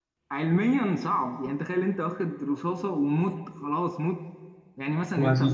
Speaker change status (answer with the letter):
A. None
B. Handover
A